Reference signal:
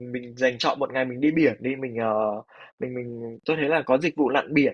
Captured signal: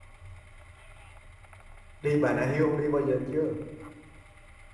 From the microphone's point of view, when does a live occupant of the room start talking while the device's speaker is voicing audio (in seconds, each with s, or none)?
2.0 s